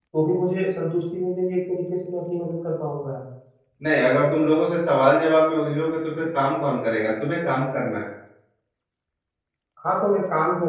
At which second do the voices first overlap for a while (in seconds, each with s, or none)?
none